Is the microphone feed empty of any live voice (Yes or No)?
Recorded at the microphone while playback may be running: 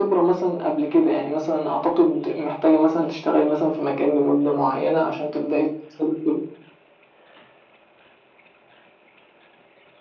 Yes